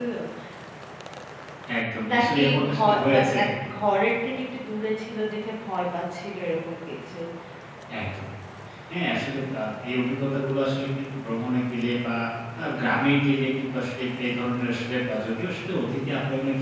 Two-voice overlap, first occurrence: 2 s

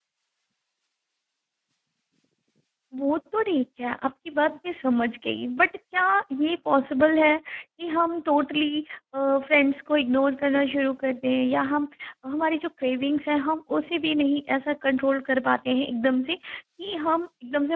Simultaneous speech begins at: none

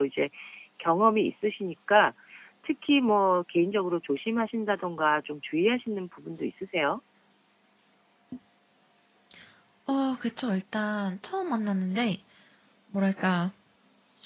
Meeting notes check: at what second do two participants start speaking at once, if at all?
none

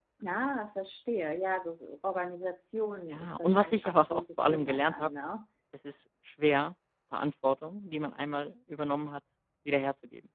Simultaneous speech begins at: 3 s

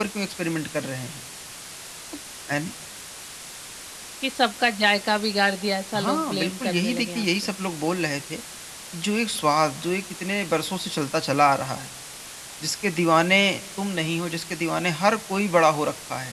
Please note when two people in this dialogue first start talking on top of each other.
6 s

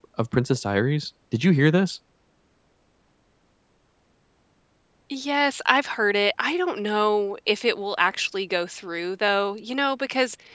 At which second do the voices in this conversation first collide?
none

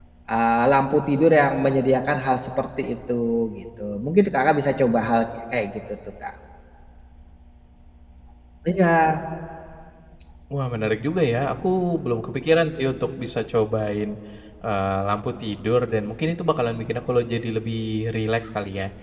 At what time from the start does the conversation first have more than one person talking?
none

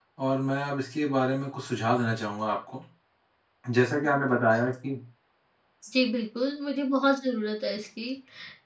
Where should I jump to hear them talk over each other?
none

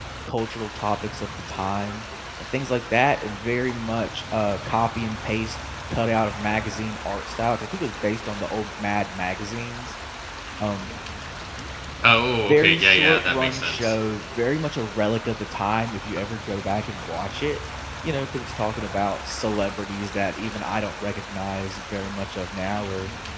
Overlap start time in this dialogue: 12 s

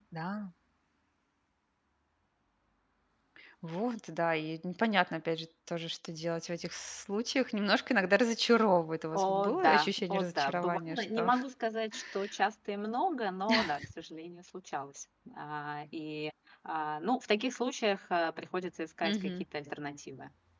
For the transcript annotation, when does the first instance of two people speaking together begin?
9 s

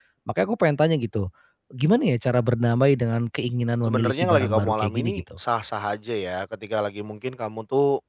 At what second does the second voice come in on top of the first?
4 s

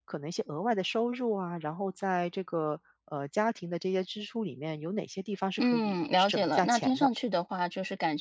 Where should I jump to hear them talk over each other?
6 s

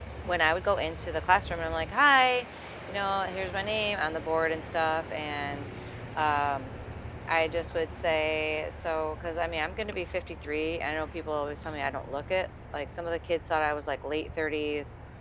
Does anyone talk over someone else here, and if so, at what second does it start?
none

